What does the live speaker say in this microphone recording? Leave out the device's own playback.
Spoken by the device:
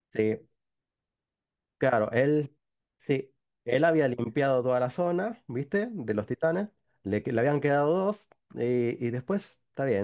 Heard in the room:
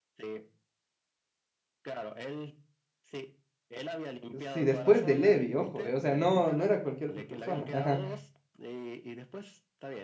si después de Levi, ojo, eh, o sea, no, no era cualquier otra persona. Ajá.

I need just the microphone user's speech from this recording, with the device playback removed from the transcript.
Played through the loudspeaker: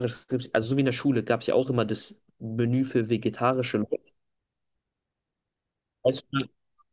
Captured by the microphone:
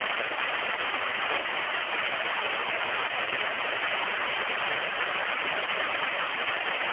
none

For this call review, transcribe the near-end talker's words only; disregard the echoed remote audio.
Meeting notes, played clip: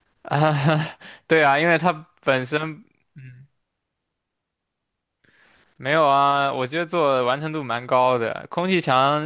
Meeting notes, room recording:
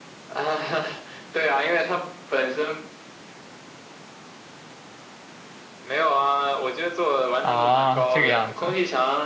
啊，这个样子

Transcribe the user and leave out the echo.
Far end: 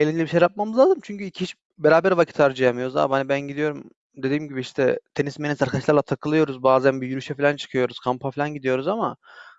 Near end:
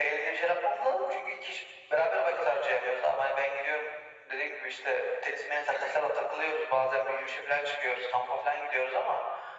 none

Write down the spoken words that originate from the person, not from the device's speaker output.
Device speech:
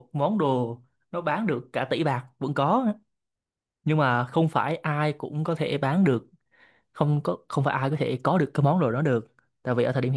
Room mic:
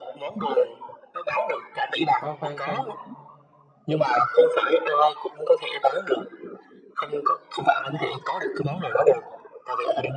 Khoan khoan khoan

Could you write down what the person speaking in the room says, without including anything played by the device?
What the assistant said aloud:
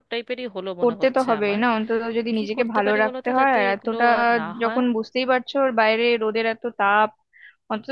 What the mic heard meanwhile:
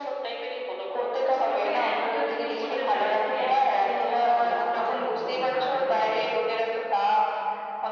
না তবে একটা জিনিস হতে পারে তুমি একদিক দিয়ে ঠিকই বলেছো যে গরম লাগলেও

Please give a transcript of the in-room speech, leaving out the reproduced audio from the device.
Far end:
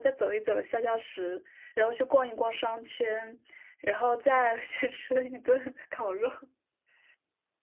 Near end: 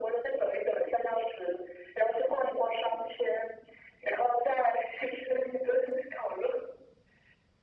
none

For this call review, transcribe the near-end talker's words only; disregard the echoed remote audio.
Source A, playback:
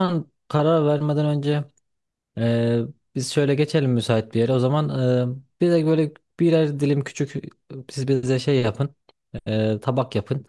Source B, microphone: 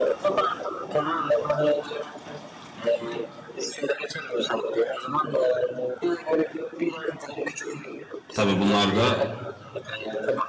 Tabii bunlar da

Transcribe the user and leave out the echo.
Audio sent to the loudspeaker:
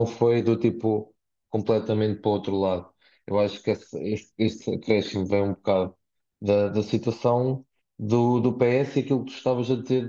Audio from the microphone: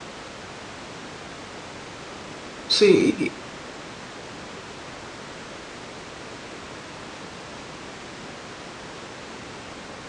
Sim, e,

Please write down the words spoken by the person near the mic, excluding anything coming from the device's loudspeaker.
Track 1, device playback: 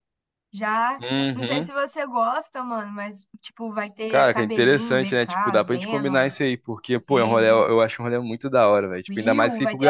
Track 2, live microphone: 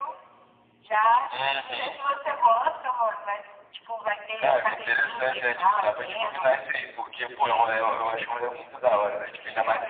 none

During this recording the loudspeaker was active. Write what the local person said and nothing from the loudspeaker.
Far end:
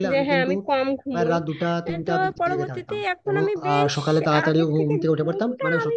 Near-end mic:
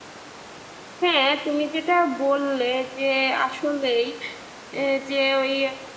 হ্যাঁ তুমি যেটা বললে যে আসলেই এ, যে ওই

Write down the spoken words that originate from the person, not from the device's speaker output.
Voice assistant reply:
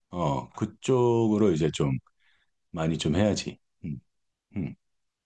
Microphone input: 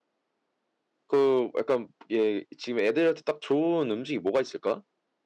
그 약간 얘 지금 애들한테 딱 좋은 음식이 뭐가 있을까?

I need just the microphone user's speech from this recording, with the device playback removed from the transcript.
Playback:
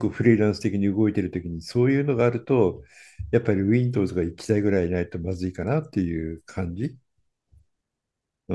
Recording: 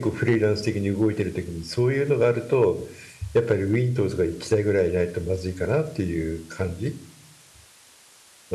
none

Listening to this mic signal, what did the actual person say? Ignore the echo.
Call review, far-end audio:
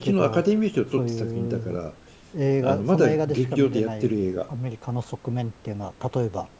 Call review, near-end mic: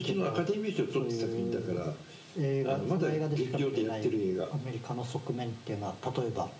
none

